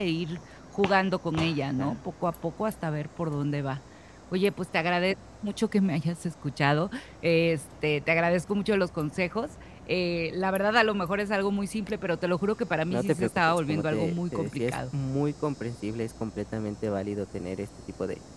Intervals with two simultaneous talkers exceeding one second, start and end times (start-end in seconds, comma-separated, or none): 12.9-14.8